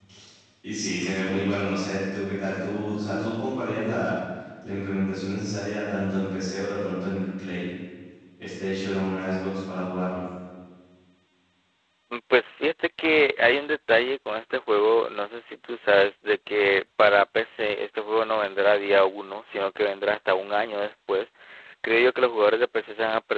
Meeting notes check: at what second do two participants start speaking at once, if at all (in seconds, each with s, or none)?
none